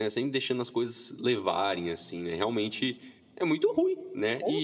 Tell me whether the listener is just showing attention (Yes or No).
No